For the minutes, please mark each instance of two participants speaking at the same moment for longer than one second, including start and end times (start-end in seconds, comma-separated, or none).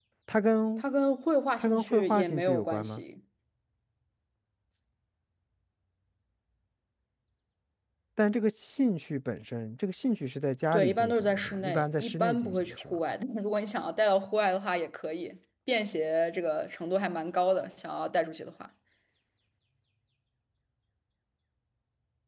1.6-3.0, 10.7-13.0